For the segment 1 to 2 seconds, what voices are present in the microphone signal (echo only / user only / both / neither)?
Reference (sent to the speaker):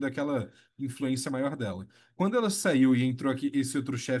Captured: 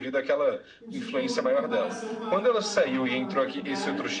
both